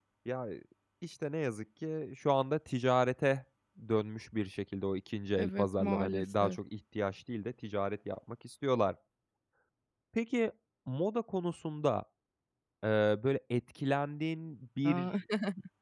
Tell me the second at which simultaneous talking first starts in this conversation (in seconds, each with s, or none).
5.4 s